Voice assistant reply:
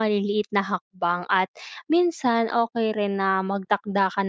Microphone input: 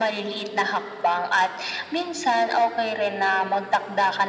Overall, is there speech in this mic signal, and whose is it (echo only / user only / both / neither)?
echo only